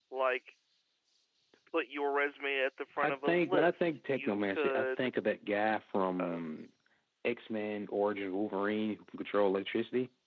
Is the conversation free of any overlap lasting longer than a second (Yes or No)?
No